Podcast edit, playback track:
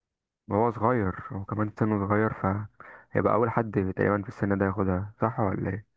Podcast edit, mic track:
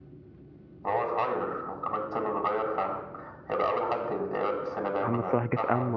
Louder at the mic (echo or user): user